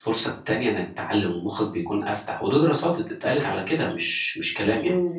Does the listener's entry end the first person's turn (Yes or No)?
Yes